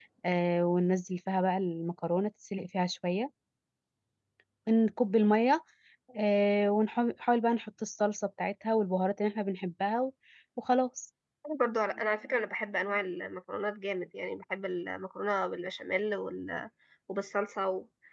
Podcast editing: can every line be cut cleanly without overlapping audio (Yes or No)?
Yes